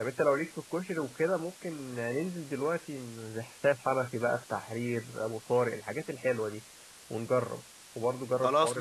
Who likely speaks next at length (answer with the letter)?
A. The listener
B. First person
A